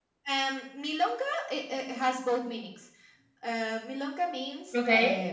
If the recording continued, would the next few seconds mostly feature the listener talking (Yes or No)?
No